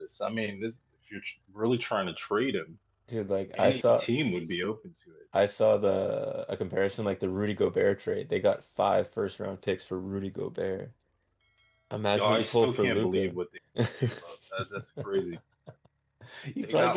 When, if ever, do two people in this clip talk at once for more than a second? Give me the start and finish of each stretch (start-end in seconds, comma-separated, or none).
12.2-13.4